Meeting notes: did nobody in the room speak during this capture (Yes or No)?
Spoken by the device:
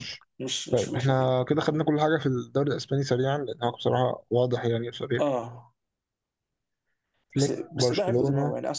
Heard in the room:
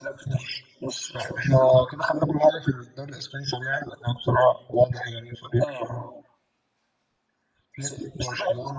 Yes